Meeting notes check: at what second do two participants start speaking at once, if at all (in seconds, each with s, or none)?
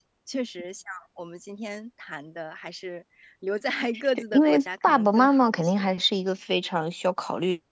3.9 s